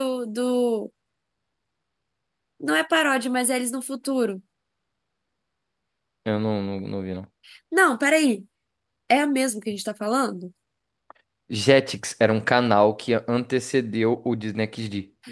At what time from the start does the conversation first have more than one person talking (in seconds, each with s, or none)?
none